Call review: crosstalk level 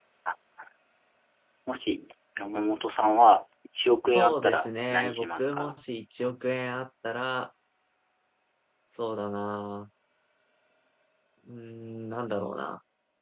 present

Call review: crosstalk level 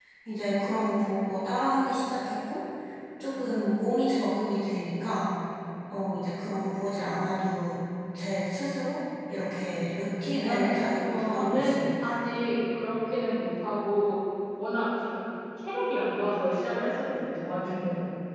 present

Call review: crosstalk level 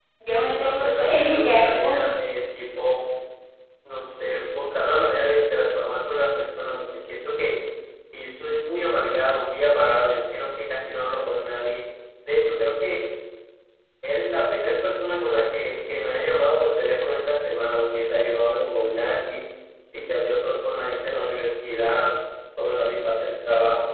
present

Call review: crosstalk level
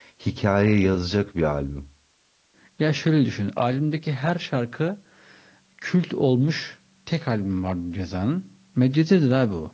none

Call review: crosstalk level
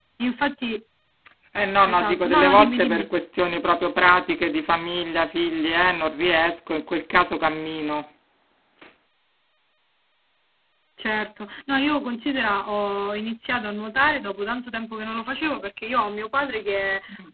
present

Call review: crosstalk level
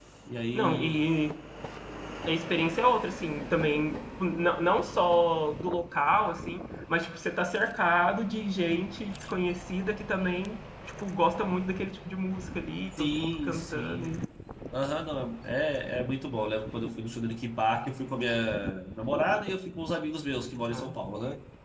present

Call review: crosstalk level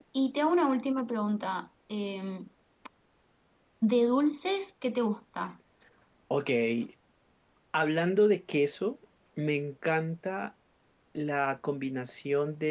none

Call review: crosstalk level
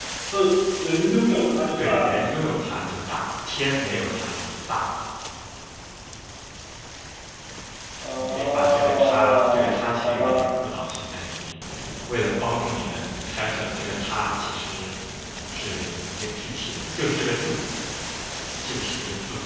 present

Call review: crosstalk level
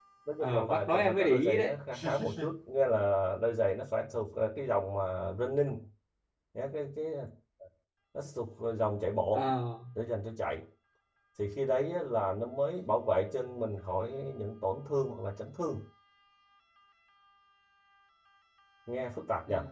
present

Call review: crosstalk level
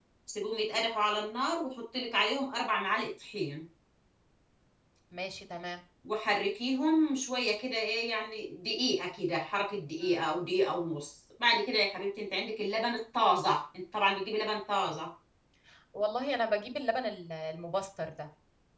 none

